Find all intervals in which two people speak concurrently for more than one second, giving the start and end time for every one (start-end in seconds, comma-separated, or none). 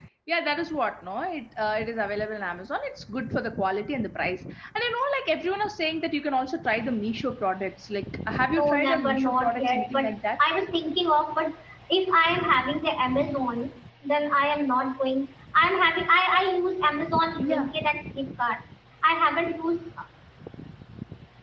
8.5-10.4